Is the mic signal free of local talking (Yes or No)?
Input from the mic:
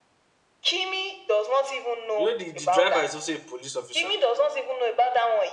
No